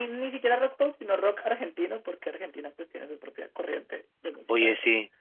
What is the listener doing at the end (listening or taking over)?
taking over